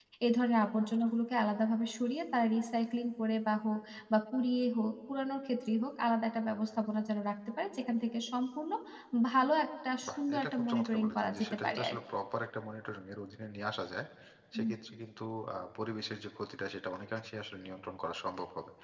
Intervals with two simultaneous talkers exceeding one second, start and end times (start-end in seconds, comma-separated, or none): 10.1-12.0